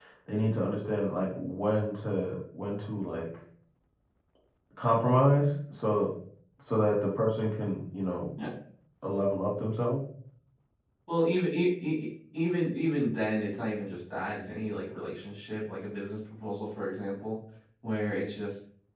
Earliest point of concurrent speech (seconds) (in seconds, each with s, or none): none